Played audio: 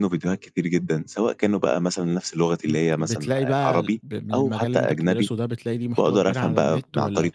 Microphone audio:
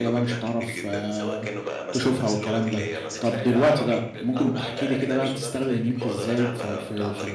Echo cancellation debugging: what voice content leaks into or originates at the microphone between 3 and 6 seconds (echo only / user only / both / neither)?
both